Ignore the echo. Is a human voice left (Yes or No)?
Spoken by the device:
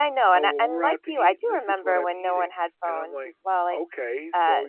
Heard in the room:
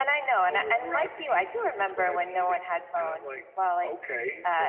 No